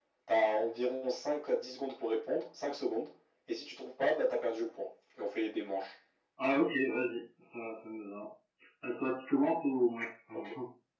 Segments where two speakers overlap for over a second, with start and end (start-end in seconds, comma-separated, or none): none